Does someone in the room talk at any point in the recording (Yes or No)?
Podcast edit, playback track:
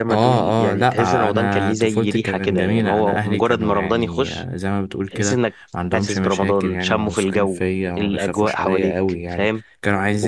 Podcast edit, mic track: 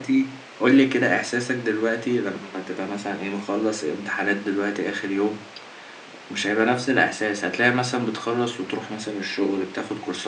Yes